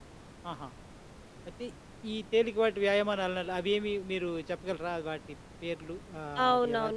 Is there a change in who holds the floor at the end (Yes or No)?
Yes